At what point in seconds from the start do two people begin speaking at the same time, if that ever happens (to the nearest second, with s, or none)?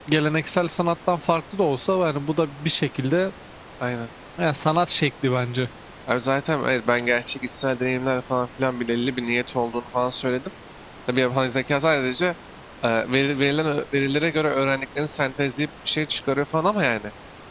none